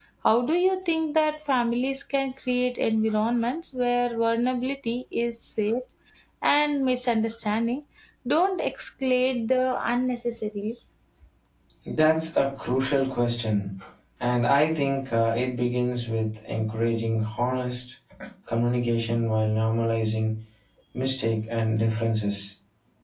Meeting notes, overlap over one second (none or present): none